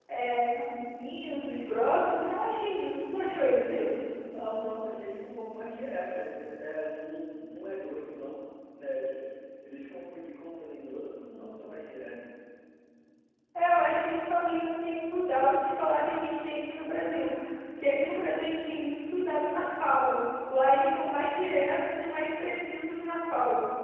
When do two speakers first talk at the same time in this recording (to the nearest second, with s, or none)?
none